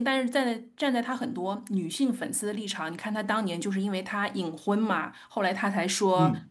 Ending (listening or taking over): listening